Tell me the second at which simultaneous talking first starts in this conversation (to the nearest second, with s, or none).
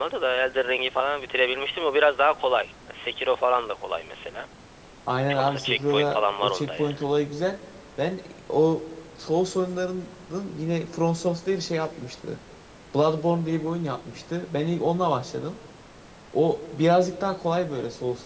5 s